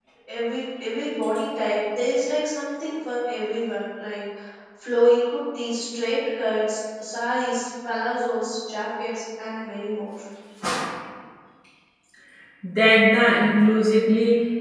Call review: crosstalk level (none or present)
none